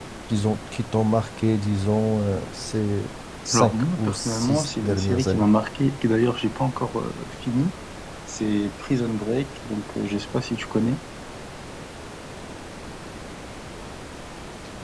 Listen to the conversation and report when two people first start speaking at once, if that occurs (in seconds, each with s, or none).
3.5 s